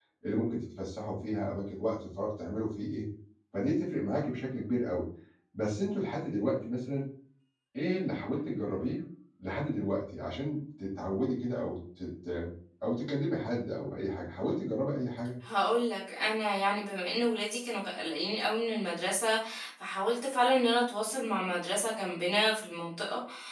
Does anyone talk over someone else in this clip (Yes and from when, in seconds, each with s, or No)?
No